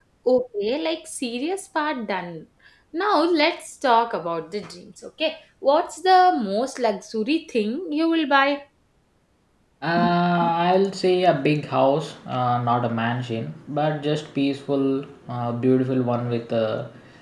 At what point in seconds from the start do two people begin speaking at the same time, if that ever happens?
none

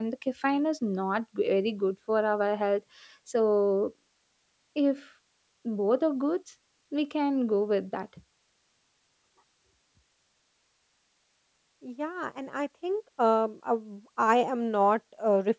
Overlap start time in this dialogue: none

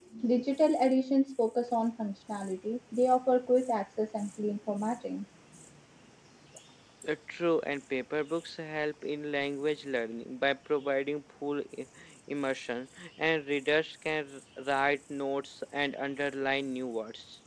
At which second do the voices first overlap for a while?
none

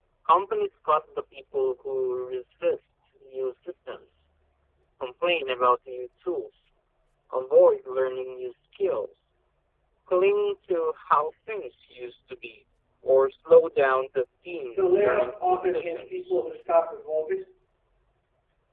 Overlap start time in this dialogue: 14.7 s

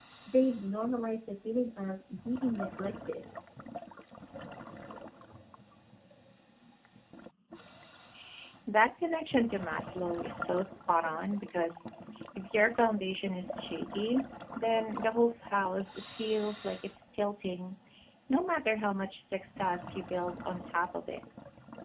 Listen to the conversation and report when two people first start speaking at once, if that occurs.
none

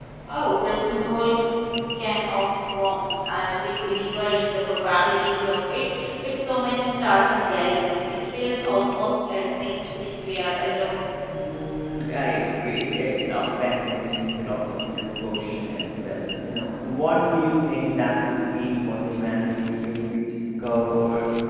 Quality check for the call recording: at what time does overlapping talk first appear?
none

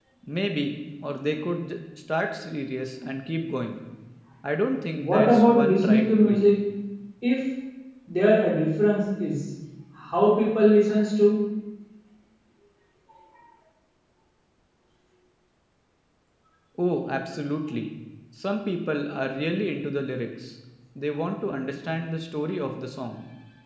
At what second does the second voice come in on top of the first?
5.0 s

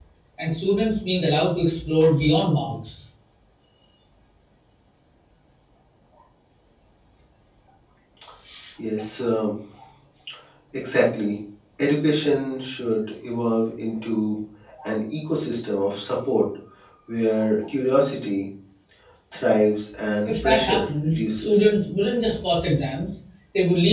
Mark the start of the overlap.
20.3 s

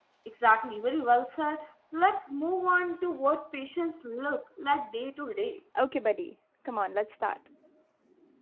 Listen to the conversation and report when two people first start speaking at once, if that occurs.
none

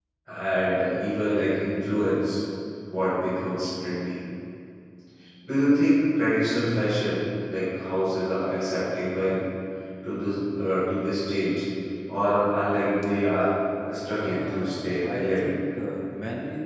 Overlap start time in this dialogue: 14.2 s

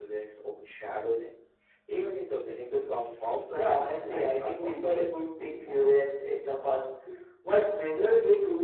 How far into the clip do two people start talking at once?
3.6 s

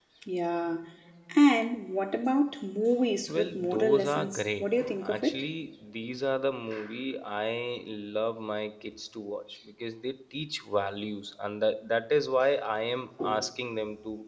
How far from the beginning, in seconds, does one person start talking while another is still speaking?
3.3 s

